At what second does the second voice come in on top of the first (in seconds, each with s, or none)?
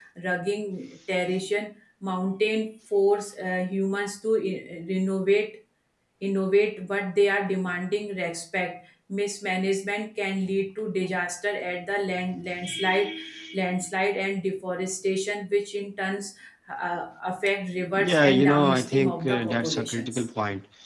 18.0 s